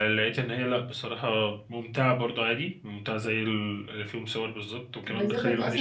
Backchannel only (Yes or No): No